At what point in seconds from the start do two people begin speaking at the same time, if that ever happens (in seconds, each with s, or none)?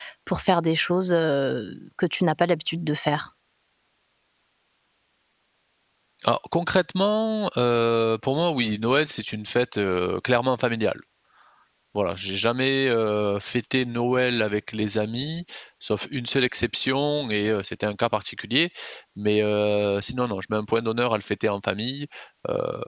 none